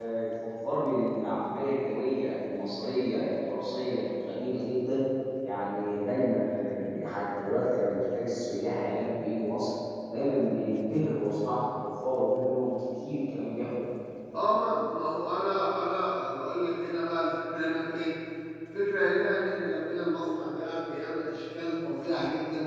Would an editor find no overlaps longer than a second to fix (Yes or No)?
Yes